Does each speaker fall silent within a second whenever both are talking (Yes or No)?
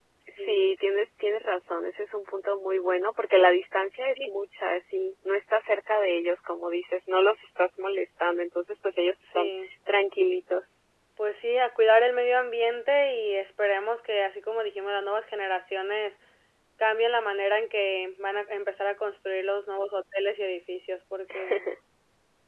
Yes